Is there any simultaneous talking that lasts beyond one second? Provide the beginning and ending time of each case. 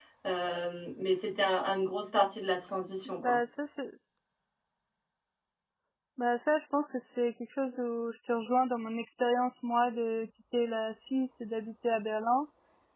none

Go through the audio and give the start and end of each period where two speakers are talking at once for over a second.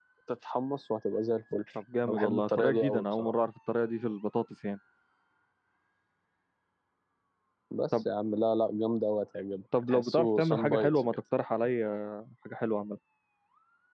2.1-3.3, 9.8-11.1

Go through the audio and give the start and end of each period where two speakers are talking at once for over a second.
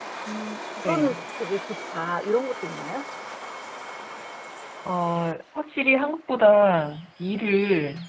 none

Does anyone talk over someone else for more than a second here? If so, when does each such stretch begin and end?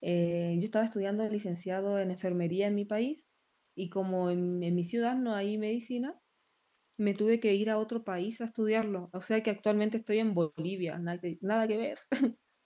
none

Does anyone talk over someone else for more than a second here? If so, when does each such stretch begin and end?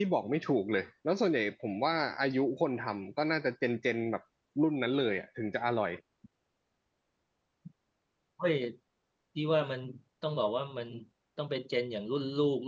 none

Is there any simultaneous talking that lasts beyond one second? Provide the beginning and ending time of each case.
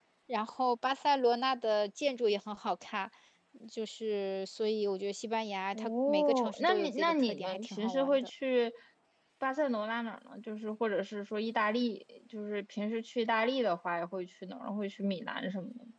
5.7-8.3

